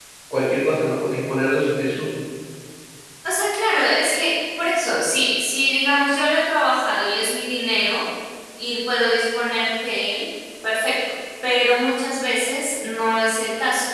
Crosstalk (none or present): none